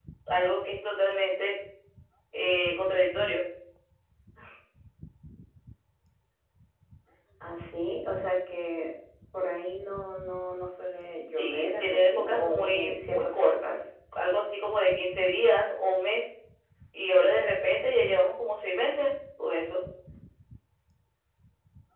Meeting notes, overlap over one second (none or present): present